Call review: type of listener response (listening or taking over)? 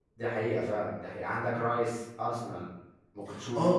taking over